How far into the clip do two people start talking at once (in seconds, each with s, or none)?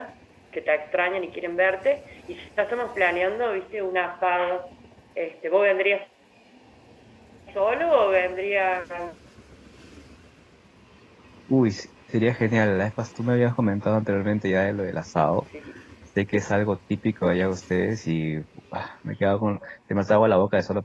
none